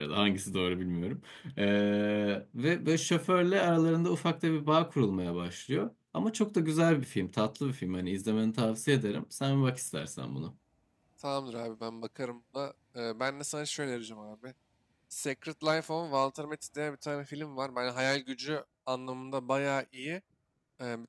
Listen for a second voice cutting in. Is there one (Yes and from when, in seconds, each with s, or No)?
No